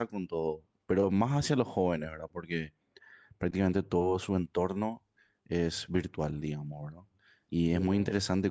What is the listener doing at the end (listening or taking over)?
listening